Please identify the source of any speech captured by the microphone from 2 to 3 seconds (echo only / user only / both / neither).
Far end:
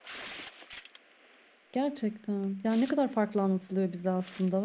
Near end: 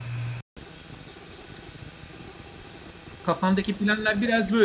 neither